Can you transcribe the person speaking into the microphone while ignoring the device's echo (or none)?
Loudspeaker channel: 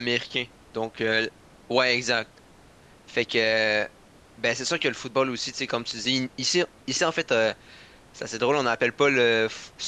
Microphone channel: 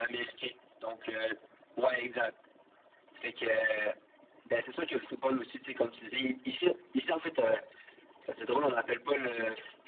none